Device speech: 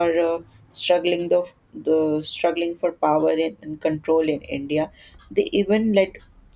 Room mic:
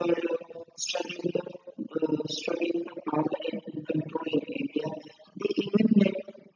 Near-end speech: none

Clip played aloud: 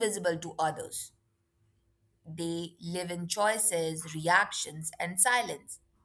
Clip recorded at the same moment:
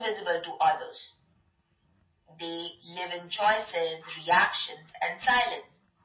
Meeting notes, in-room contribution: none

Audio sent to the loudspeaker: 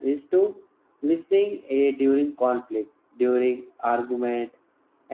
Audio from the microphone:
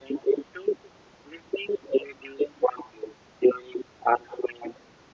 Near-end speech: none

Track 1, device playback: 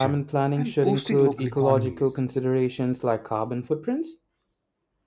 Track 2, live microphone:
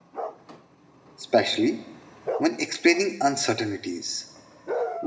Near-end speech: present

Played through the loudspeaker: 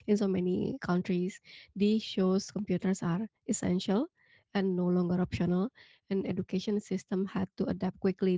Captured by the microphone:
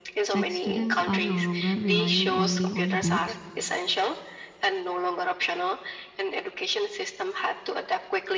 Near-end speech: present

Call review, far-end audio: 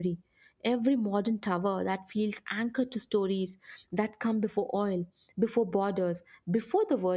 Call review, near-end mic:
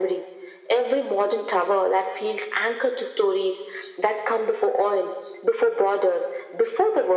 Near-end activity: none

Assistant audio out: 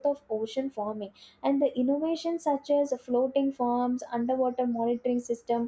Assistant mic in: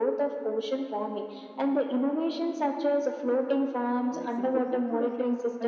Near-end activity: present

